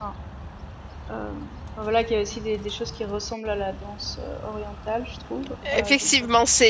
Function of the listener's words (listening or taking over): taking over